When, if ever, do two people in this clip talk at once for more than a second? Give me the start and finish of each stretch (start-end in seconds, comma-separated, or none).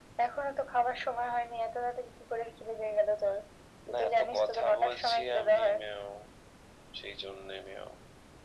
3.9-5.8